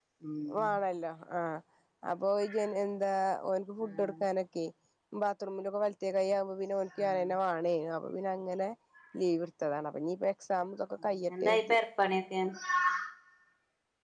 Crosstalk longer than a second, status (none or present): none